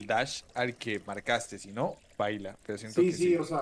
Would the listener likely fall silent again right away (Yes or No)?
No